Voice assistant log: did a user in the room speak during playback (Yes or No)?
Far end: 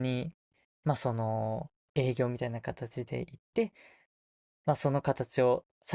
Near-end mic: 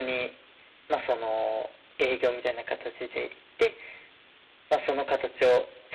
No